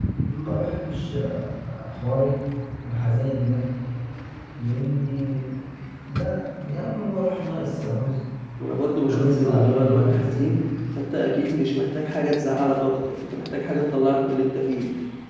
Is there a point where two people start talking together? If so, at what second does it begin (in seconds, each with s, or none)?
9.1 s